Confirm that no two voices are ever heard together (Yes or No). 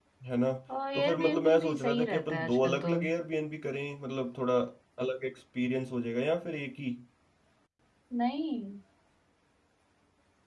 No